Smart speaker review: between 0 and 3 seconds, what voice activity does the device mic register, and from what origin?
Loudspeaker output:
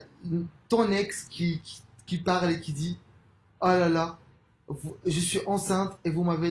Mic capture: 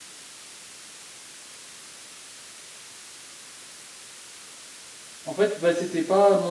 neither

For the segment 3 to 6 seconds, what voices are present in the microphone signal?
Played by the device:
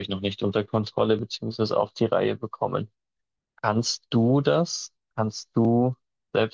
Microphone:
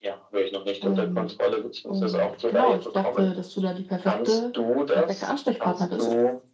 both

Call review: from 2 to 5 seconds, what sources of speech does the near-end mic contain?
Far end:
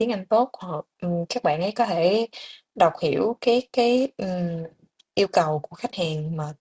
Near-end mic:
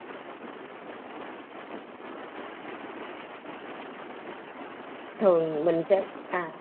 neither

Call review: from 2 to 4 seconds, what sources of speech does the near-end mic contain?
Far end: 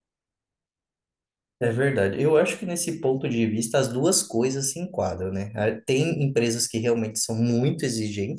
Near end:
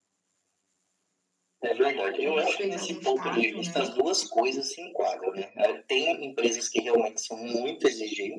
both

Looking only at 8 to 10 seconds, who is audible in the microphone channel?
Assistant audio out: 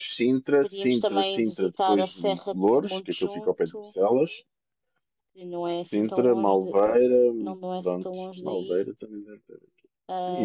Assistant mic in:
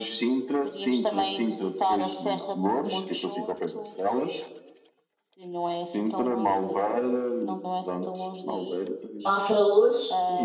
both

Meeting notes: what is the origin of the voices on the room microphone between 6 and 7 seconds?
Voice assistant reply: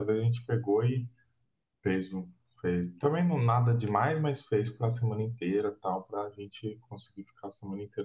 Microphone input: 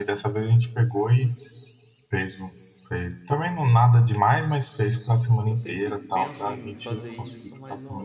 both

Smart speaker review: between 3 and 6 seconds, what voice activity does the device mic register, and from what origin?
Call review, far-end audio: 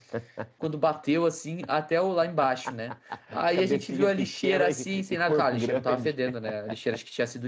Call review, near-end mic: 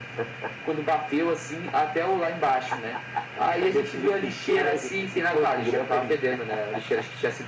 echo only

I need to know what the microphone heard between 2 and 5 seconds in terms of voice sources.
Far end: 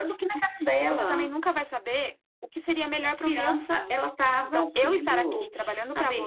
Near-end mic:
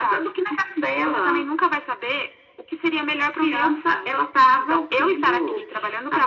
echo only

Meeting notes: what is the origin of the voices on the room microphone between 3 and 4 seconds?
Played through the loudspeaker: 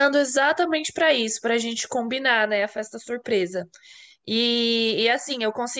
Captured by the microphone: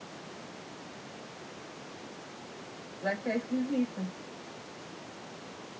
user only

